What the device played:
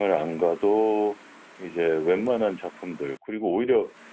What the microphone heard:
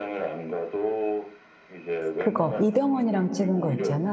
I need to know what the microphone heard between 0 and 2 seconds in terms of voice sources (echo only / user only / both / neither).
echo only